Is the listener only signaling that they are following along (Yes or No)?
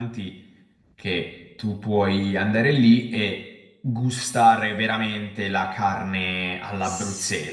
No